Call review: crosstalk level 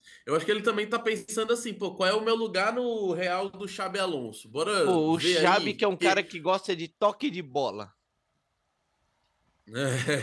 present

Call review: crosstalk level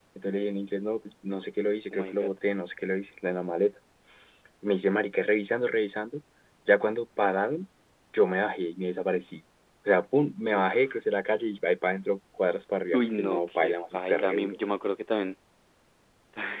present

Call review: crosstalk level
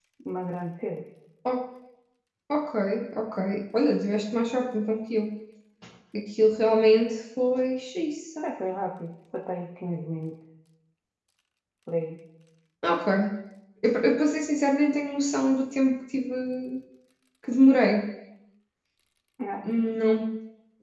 none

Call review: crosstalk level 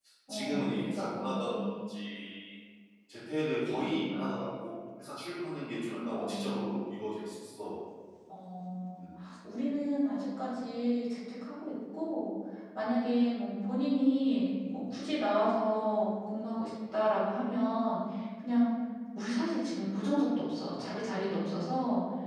present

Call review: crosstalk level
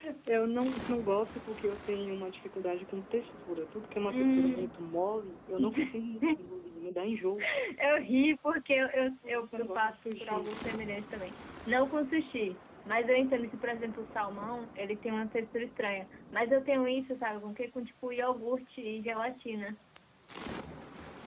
present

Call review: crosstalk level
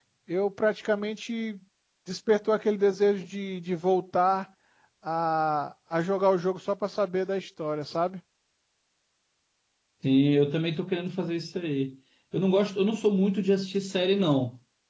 none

